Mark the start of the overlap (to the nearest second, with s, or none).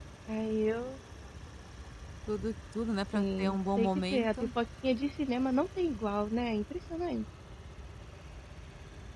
3 s